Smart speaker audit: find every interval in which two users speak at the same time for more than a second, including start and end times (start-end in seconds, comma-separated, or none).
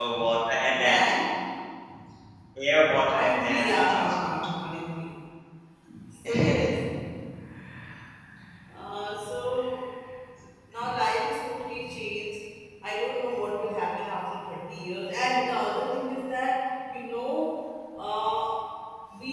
3.1-4.3